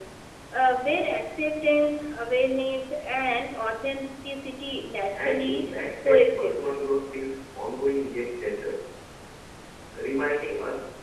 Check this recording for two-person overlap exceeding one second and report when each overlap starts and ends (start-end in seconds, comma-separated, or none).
5.1-6.7